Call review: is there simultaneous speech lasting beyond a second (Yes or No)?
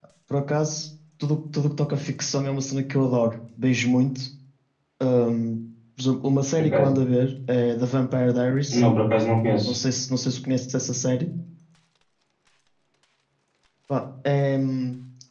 No